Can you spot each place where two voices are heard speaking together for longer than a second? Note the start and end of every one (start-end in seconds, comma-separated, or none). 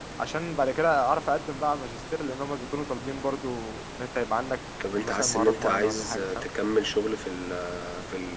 5.0-6.5